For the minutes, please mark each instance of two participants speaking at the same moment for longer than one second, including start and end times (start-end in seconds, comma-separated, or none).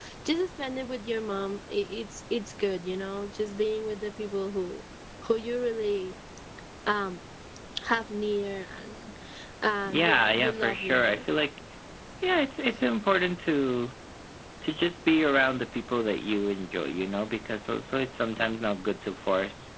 9.8-11.2